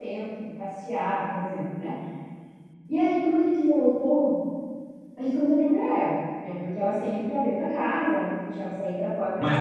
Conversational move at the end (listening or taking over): taking over